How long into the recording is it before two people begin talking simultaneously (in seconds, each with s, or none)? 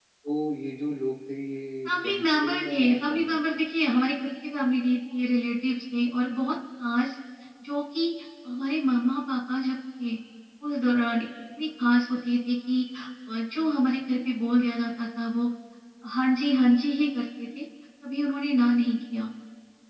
1.9 s